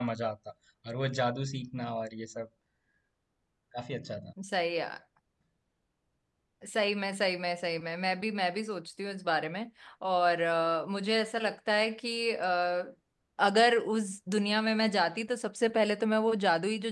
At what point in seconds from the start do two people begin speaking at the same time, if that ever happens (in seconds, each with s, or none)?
none